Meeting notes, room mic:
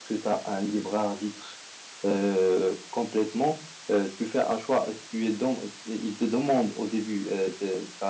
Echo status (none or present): none